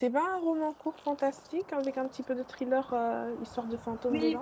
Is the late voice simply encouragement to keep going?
No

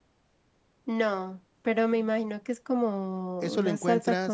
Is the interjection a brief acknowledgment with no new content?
No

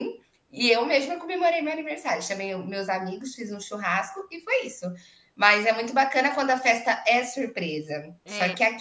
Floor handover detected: No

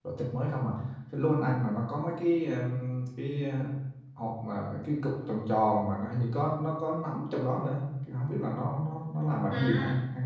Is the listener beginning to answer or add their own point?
Yes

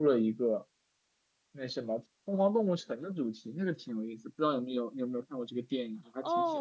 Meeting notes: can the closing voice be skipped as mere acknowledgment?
No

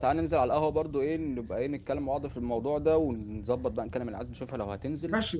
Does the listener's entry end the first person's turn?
Yes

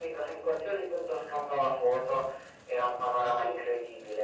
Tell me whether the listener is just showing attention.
Yes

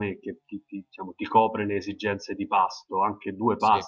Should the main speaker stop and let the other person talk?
No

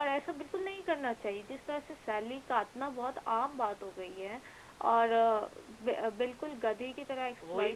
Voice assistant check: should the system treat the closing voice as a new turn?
No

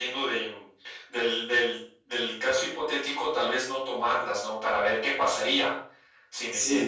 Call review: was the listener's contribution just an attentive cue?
No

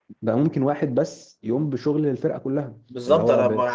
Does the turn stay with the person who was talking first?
No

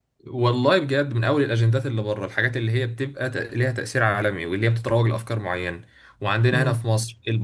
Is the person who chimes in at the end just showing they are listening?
Yes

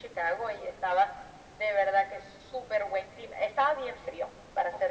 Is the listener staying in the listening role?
Yes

